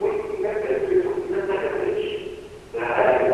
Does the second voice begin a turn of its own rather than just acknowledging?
No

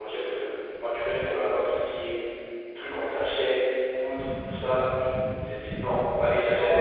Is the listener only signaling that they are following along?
No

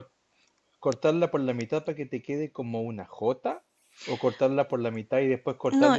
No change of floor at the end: Yes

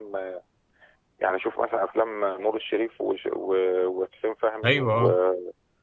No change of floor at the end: Yes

